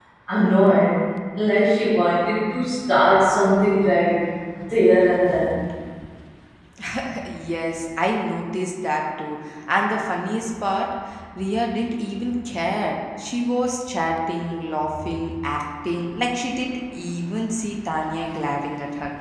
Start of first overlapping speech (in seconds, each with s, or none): none